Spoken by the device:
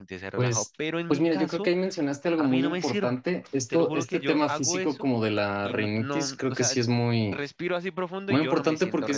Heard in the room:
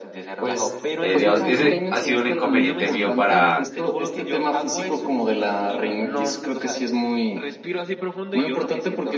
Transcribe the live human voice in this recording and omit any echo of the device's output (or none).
eh, digamos, ese ha sido un inconveniente mío para,